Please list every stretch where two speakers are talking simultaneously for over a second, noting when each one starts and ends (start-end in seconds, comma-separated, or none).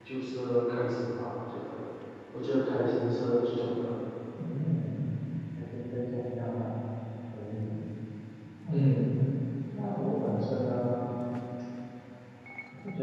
none